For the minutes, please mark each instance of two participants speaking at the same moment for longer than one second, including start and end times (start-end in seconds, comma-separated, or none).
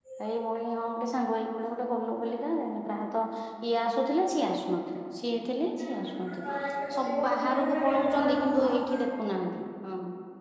7.0-8.6